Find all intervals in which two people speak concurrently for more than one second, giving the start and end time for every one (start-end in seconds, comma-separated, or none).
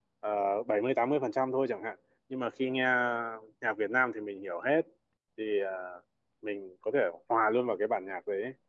none